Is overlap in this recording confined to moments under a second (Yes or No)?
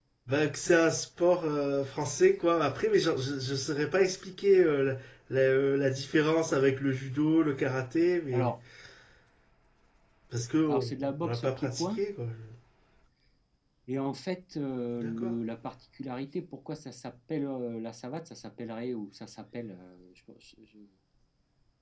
No